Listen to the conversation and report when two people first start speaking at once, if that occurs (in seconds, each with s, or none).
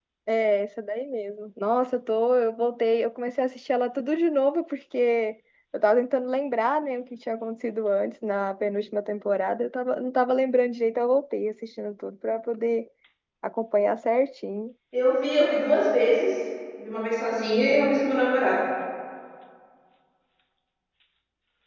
none